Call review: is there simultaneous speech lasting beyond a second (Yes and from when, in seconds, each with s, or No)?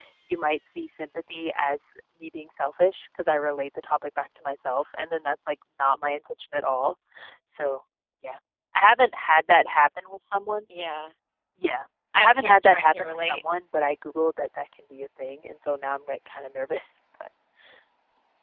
Yes, from 12.2 s